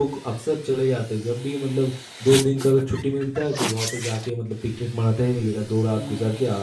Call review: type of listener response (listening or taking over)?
listening